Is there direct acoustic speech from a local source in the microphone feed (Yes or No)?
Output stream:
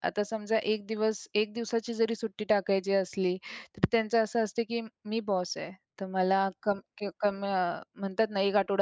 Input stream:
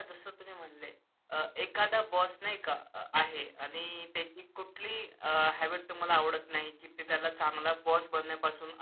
Yes